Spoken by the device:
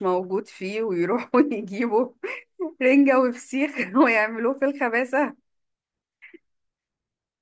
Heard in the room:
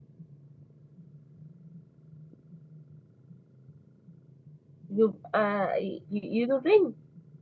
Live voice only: يبقى ي- ي- يضرني

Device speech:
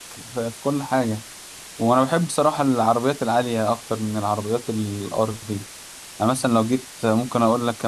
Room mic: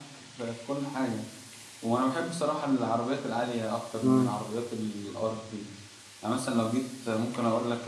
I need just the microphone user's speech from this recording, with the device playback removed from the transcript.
امم

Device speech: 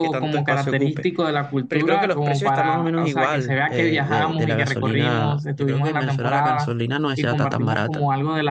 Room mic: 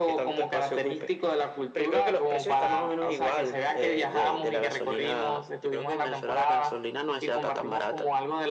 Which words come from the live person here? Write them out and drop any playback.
none

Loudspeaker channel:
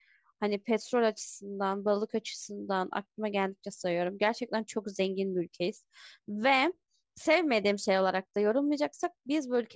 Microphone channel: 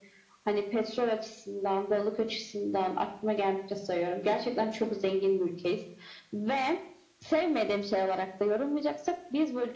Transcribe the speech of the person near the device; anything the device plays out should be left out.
none

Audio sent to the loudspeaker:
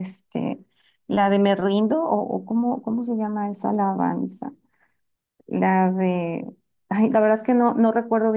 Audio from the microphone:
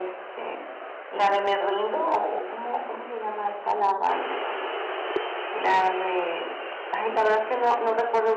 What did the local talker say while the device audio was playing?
none

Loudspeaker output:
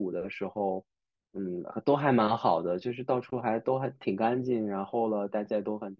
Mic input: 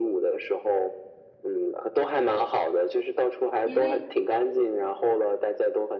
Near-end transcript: 因为

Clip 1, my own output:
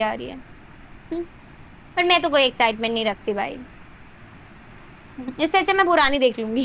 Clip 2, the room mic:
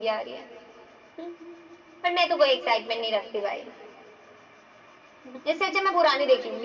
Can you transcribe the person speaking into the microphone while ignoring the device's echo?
none

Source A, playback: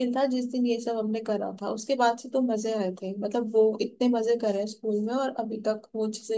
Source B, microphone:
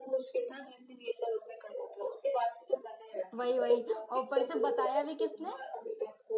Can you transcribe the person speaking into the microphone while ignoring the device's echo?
वही वही और ऊपर से बताया भी किसने

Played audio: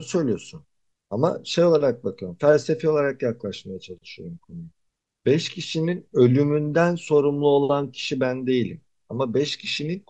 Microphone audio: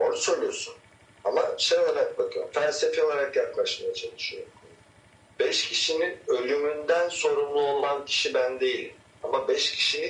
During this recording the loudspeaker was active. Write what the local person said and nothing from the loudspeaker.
none

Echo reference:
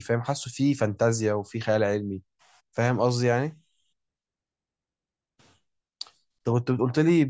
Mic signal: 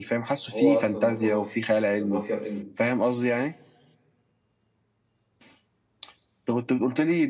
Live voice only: هو اصلا هم مافيا بس مافيا في إن-

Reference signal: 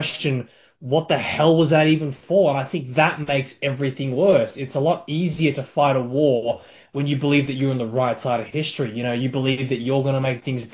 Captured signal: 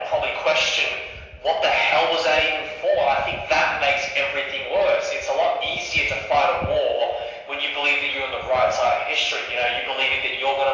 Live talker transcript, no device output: none

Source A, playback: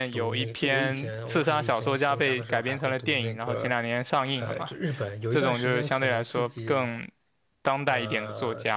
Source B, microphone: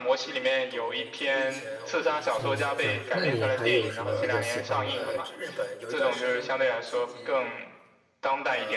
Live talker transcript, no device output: 嗯，对。那你还有什么比较喜欢的一

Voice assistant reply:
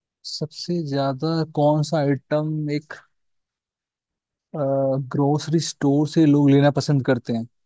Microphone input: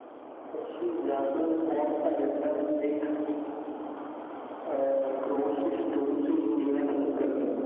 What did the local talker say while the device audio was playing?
none

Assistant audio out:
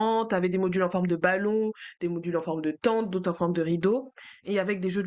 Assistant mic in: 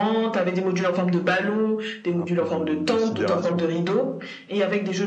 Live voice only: un peu de, de sidération.

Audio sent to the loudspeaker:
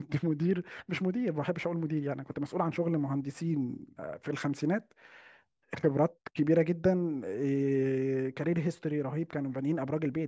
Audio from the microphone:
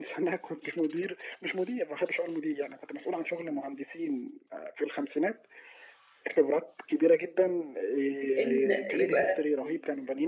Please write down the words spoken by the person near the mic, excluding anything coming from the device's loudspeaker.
ان يبقى في

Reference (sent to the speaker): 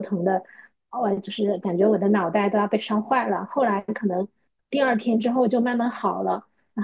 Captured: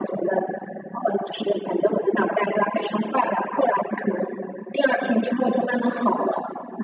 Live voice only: none

